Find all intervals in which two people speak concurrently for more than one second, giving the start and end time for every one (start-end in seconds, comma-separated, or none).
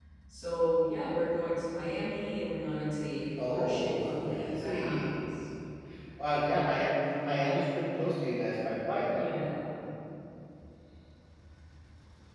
3.4-5.1